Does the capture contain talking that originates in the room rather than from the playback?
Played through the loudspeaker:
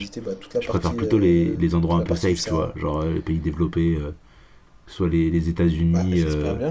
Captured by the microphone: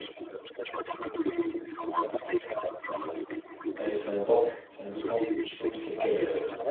Yes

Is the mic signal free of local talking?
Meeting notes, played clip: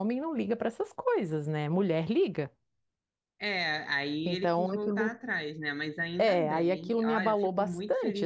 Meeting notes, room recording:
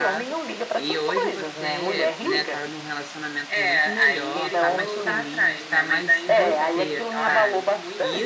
No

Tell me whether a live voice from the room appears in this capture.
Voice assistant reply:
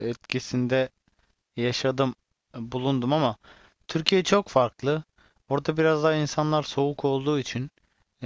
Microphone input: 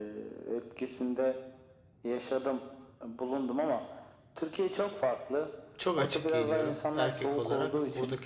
Yes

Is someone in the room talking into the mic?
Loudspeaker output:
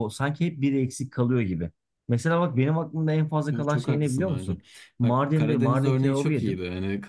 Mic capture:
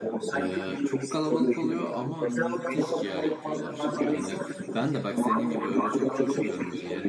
Yes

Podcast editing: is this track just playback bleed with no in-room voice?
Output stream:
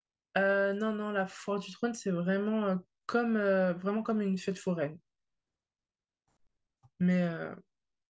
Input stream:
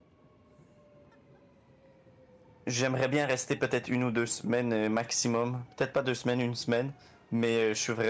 No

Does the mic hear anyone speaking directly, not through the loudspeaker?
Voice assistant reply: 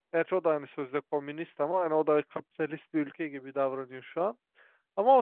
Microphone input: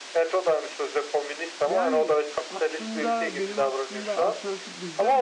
Yes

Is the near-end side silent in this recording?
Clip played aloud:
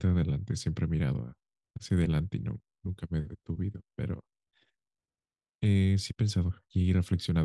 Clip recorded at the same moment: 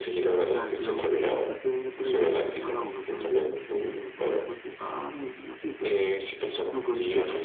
No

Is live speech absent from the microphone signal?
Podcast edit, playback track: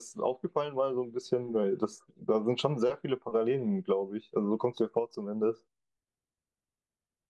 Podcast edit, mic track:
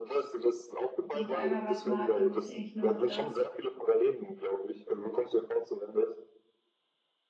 No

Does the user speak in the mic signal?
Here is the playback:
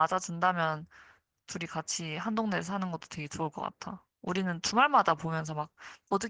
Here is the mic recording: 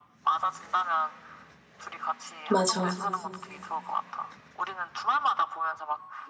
Yes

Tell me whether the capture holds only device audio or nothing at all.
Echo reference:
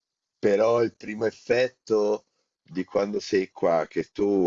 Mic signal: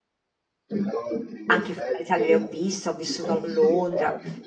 No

